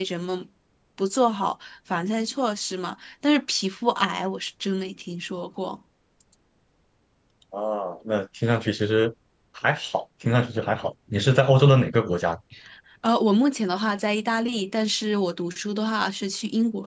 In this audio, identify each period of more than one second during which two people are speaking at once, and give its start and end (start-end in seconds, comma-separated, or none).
none